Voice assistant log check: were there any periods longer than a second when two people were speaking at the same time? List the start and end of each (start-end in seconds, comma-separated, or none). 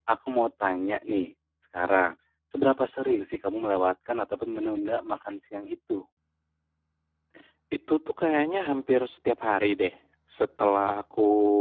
none